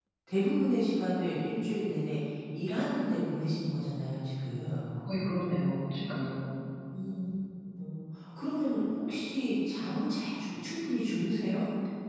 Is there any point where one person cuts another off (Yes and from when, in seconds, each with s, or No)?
No